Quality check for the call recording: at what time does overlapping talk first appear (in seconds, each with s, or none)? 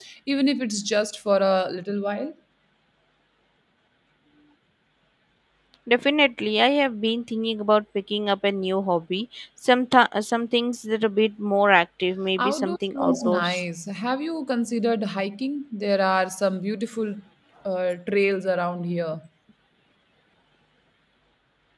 12.4 s